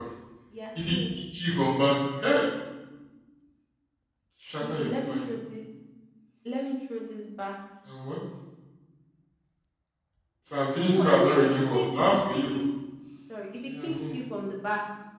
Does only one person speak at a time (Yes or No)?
No